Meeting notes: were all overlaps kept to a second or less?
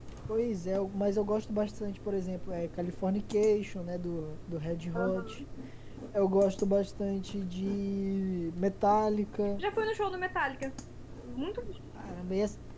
Yes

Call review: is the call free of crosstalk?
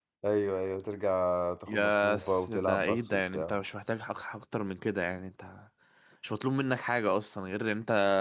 No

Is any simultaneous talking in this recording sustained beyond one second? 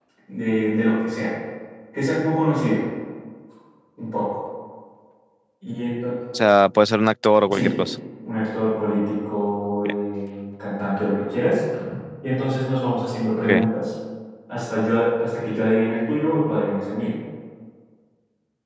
No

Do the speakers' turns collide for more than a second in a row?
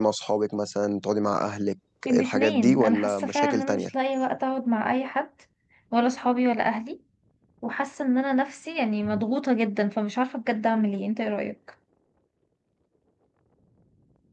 Yes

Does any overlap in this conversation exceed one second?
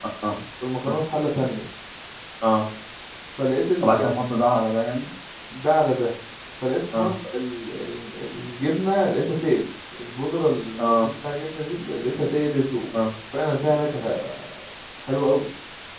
No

